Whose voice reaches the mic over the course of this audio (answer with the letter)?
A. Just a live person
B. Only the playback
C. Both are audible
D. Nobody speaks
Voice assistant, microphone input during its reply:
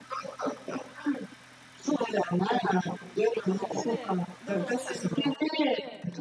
C